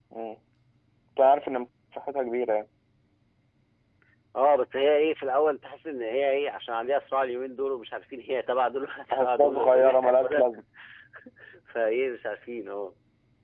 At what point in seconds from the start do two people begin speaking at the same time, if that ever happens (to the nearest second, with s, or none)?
9 s